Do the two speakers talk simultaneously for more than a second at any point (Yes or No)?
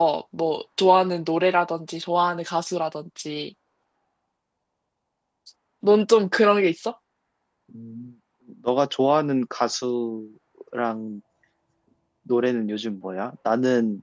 No